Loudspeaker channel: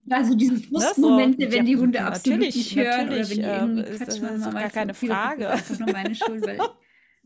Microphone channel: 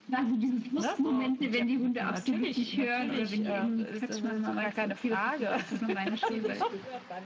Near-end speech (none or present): present